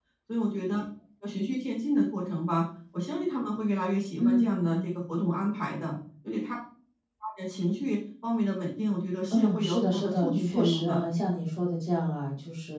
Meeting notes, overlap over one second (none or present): present